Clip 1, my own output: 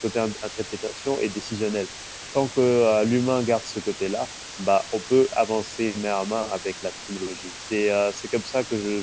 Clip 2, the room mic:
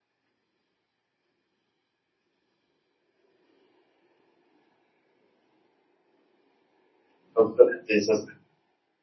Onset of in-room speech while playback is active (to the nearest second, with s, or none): 7 s